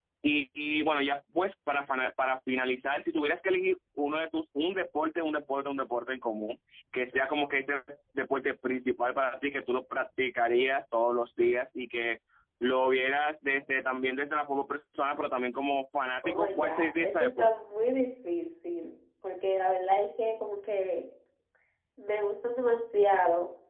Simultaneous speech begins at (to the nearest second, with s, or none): 16 s